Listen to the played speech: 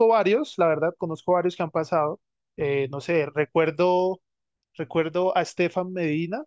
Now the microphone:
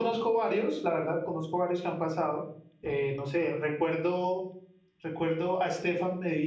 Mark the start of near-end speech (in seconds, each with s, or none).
none